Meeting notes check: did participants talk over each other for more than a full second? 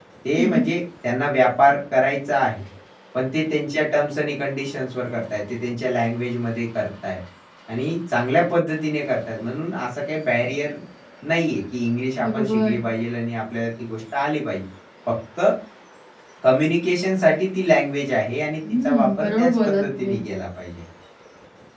Yes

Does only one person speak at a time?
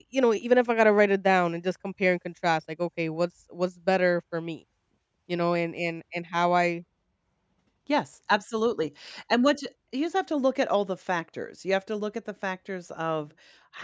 Yes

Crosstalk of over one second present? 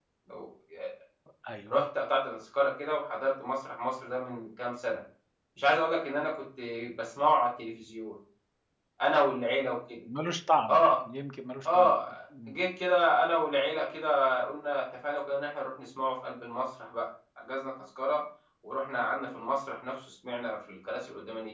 No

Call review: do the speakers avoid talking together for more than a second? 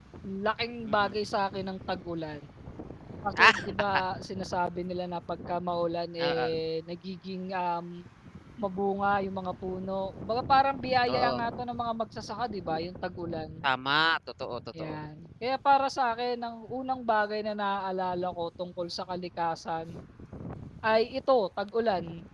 Yes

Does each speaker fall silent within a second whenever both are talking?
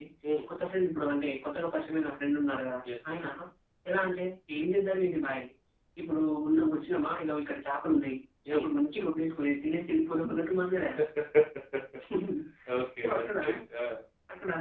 Yes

